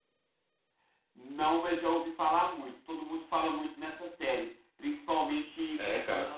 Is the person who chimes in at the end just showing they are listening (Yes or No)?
Yes